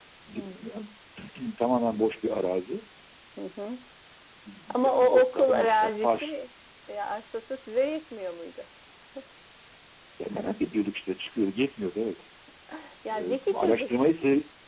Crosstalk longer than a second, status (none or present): present